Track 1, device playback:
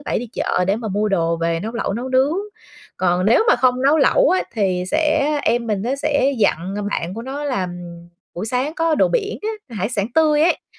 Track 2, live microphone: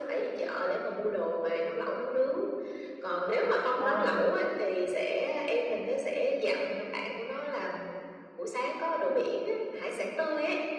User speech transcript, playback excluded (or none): À.